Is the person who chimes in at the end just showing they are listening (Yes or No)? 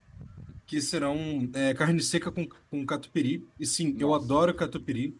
Yes